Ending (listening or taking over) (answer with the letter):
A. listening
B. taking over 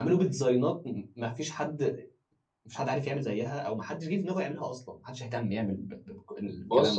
B